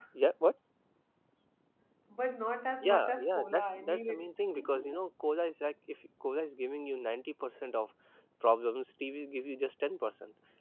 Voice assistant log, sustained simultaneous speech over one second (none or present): present